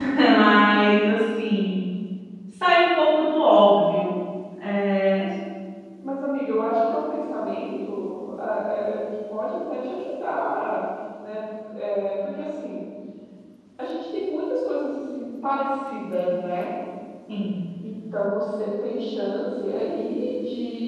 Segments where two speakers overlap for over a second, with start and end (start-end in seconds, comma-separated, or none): none